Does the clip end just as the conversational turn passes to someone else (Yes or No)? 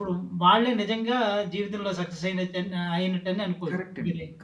Yes